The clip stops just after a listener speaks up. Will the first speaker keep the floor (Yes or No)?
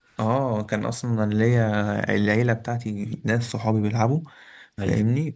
Yes